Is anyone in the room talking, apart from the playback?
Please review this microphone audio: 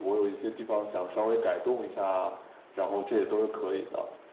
No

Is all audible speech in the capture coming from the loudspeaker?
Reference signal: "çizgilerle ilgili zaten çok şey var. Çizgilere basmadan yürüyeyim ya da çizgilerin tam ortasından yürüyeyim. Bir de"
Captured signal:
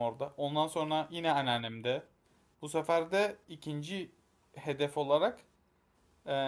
No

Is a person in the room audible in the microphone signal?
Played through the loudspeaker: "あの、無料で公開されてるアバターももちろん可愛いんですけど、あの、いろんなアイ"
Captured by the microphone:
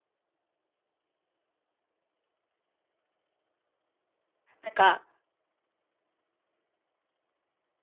Yes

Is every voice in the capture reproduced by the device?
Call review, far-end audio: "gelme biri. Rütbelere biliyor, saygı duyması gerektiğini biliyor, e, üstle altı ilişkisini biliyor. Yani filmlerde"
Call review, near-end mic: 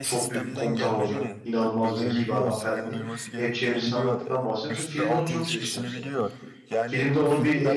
No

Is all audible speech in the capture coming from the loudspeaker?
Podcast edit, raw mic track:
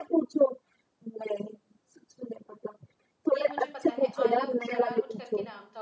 No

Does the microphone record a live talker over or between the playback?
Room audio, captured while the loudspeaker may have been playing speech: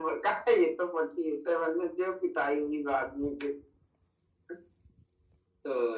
No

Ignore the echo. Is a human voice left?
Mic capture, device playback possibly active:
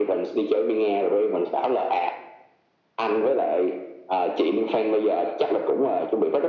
No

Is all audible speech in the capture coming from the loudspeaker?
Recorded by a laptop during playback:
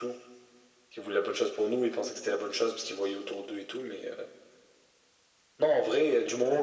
Yes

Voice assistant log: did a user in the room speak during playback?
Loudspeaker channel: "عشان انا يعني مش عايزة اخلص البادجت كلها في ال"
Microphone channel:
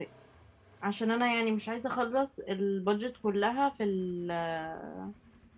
No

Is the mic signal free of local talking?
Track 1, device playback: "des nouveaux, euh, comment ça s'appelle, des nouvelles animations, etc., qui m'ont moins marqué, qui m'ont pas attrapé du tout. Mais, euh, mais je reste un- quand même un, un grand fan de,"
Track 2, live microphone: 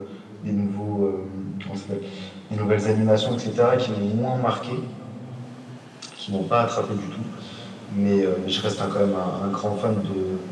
Yes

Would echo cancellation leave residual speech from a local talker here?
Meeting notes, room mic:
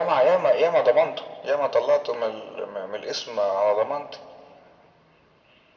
No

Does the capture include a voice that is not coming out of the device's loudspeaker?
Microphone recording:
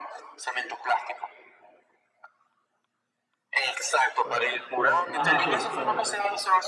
Yes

